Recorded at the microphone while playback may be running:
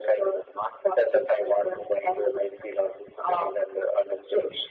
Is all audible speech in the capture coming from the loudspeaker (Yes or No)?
Yes